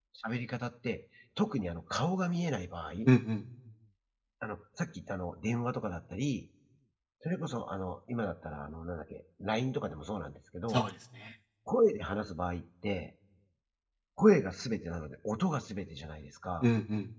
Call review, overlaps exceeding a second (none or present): none